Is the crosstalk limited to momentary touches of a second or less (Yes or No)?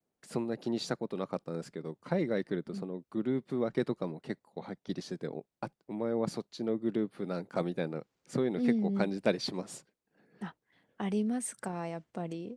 Yes